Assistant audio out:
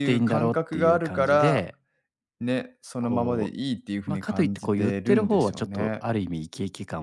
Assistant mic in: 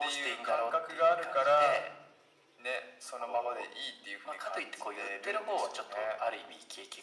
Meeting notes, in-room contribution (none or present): none